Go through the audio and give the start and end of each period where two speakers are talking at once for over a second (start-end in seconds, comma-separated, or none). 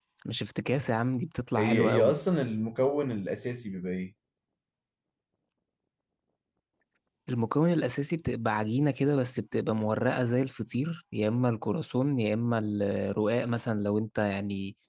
none